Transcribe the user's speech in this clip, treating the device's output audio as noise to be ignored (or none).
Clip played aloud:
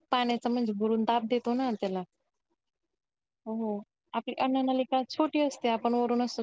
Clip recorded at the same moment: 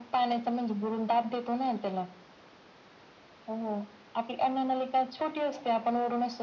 none